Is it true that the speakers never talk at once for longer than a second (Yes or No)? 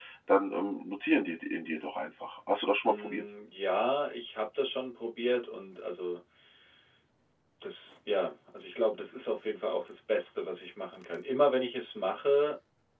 Yes